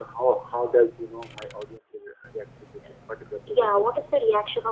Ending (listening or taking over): taking over